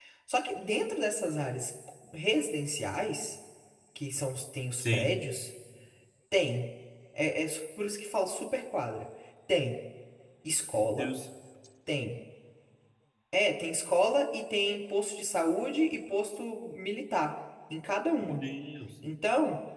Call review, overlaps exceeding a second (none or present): none